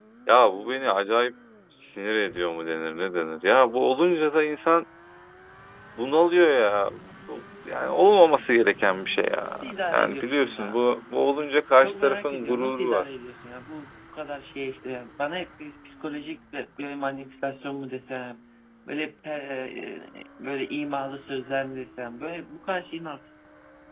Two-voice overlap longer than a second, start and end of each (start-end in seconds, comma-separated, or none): 9.6-10.8, 11.8-13.0